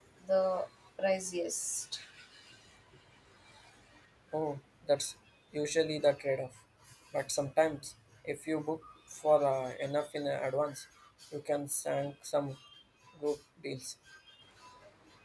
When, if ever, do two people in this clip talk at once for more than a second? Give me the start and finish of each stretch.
none

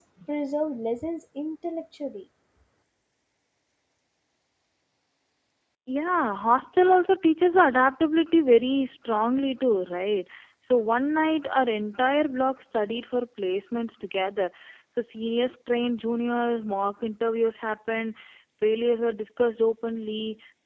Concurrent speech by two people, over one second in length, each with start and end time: none

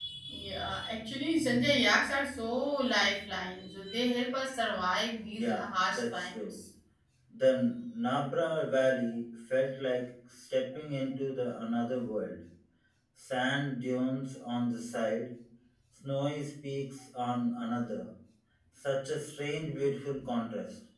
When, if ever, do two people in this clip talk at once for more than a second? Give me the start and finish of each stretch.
5.3-6.5

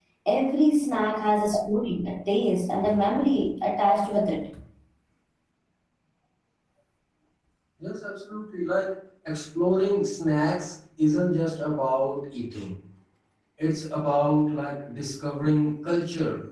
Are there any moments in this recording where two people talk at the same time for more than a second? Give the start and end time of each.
none

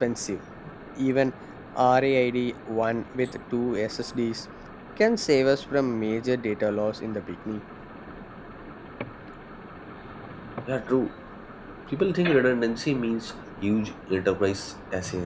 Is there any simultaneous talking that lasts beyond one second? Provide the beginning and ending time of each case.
none

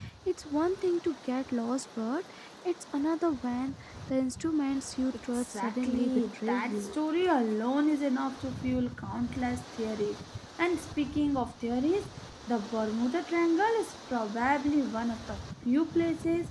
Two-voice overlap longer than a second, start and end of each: 5.3-7.0

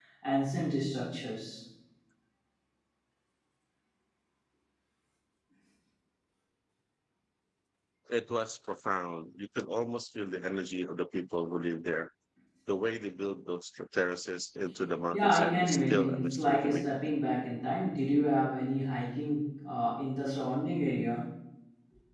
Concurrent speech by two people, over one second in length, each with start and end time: 15.1-16.9

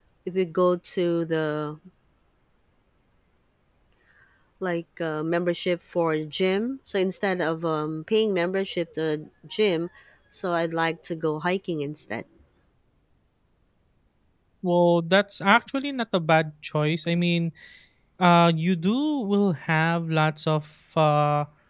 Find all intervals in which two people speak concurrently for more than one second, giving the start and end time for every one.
none

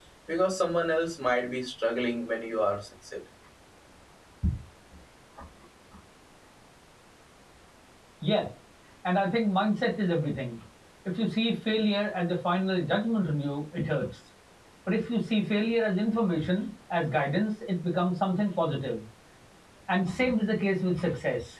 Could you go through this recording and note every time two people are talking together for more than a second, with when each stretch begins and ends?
none

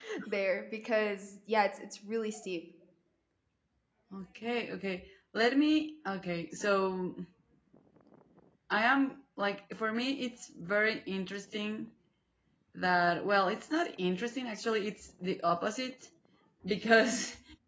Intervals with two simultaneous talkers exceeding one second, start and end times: none

